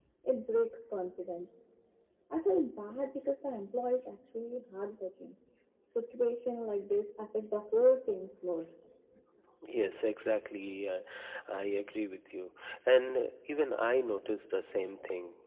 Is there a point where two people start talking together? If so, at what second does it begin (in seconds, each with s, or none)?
none